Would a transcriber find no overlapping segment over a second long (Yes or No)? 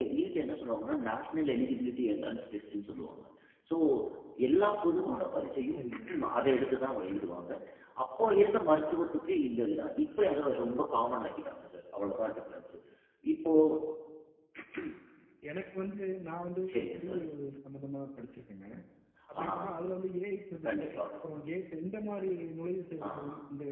Yes